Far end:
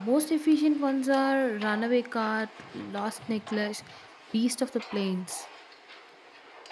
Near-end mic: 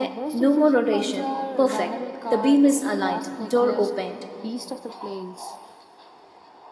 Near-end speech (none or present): present